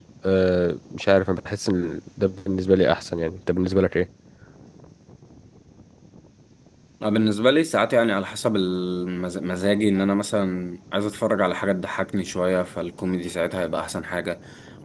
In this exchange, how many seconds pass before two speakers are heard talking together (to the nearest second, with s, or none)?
none